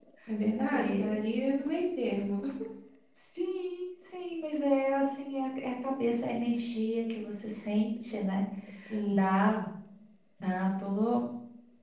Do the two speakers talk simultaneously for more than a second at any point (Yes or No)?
No